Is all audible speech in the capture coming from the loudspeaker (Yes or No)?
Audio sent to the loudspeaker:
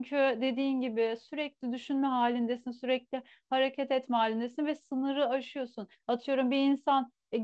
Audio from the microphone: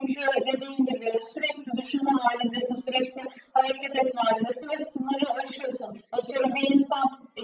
Yes